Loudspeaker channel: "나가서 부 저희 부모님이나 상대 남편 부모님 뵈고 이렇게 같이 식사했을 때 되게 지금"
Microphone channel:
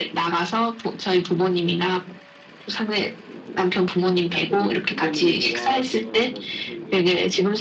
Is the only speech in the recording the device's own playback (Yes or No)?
No